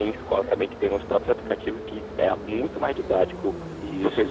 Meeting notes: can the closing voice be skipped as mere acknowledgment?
Yes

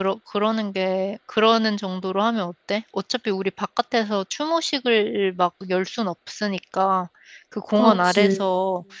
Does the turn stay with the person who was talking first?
Yes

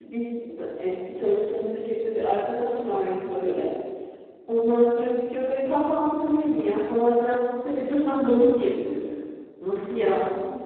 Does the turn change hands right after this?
No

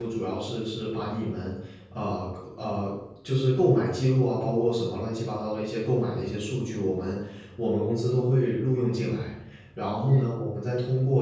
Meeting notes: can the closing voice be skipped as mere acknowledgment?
Yes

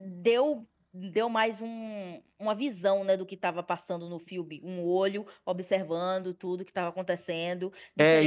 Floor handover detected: Yes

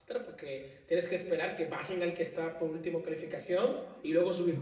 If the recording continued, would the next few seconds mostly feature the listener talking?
No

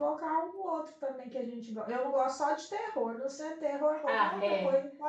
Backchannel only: No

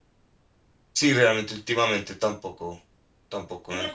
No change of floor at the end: No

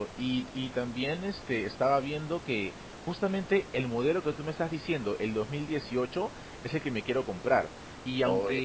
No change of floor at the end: Yes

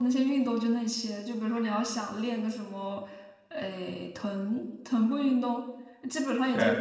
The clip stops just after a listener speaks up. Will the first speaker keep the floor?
Yes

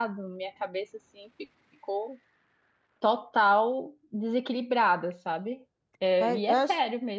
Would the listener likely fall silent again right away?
No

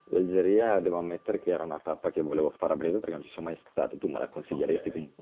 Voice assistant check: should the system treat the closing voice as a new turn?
Yes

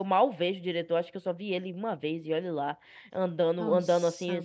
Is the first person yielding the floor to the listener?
No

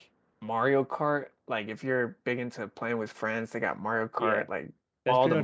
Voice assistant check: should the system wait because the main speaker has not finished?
No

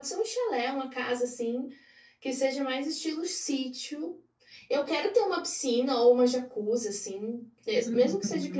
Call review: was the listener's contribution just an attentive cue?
Yes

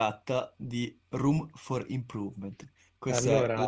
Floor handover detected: No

